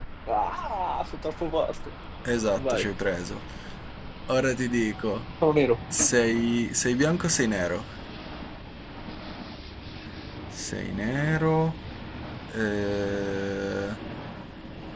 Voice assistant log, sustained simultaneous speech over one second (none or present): none